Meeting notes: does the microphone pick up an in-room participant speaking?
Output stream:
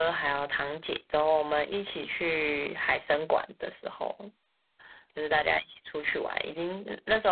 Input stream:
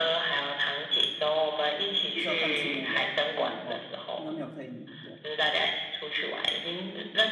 Yes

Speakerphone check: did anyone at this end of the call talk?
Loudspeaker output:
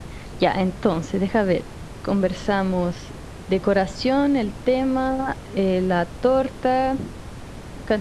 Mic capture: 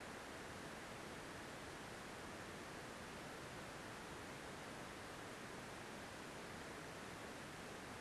No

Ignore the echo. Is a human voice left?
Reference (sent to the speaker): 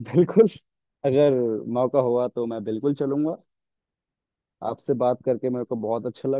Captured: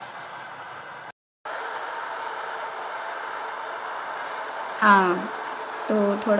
Yes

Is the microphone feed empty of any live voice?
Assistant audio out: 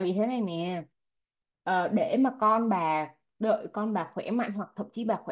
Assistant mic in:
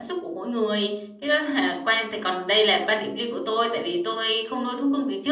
No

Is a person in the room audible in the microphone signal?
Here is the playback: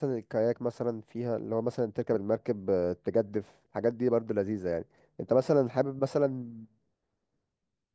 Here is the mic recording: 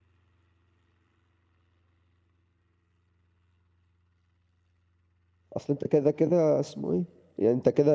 Yes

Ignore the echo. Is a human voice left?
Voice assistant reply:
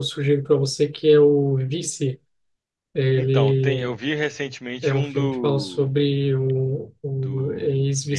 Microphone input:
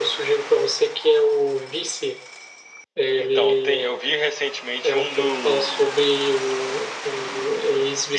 No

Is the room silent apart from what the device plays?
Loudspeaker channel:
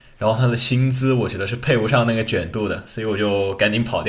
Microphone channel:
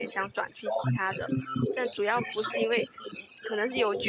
No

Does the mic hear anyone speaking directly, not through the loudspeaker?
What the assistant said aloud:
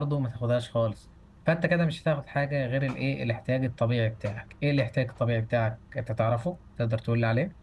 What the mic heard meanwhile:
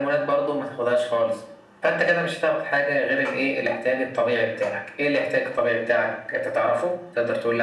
No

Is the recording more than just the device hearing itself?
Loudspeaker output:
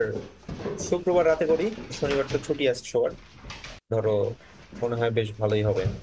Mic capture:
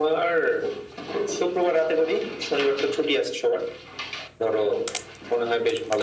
No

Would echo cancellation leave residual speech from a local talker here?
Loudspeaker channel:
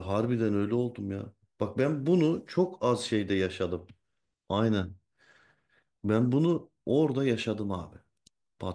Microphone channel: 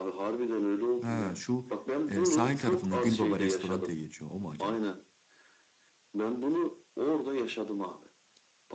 Yes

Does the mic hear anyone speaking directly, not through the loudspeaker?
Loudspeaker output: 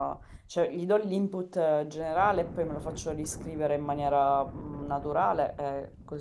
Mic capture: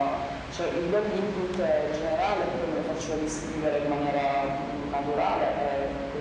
No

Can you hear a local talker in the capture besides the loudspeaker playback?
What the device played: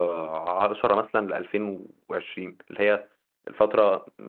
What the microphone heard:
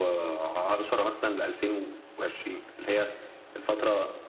No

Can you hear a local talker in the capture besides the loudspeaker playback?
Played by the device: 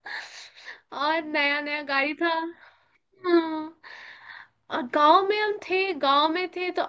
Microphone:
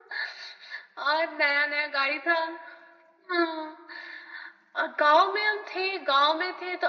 No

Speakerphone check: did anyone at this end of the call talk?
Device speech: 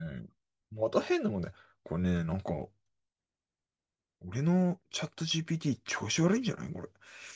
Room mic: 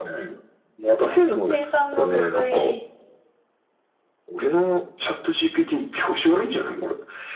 Yes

